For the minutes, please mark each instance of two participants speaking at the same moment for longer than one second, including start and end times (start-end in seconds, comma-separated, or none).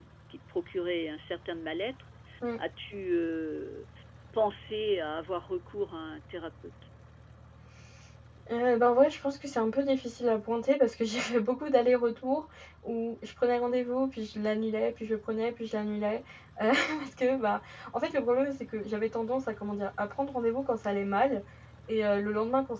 none